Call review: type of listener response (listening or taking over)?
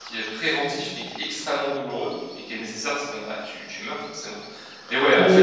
listening